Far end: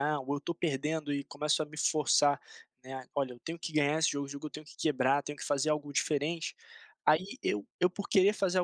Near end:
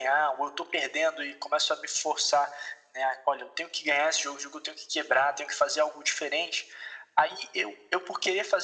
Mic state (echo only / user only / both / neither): echo only